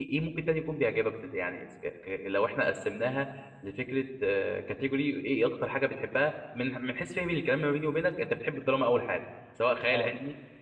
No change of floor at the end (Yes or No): No